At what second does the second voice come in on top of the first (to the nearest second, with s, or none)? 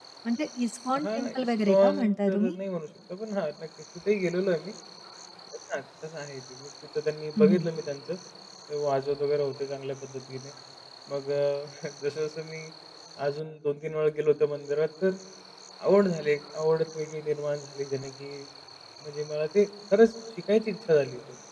1 s